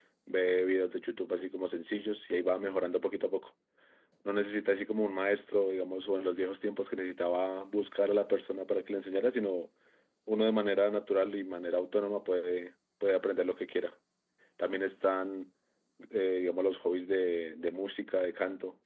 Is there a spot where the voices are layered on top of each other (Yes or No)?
No